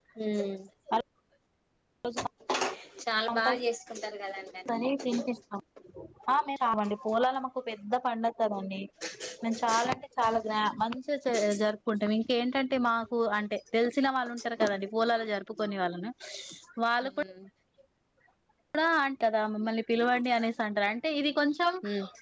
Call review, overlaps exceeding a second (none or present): none